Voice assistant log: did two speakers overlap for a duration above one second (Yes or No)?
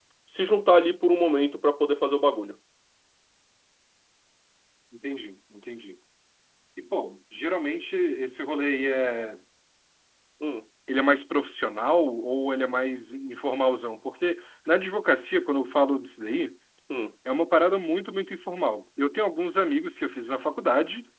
No